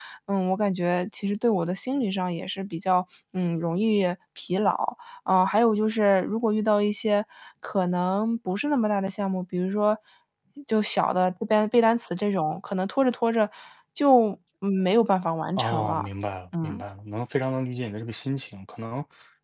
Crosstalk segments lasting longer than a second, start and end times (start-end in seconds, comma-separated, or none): none